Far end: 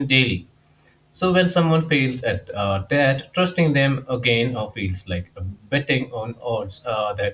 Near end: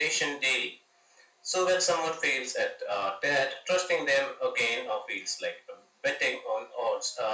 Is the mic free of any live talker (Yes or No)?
Yes